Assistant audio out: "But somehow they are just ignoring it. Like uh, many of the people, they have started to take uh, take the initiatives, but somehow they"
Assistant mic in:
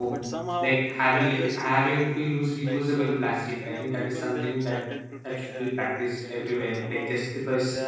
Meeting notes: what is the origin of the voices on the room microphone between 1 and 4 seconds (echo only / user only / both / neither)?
both